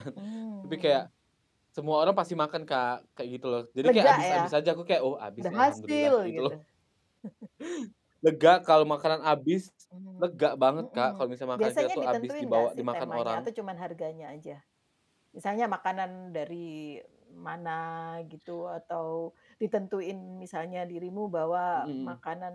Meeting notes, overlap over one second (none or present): present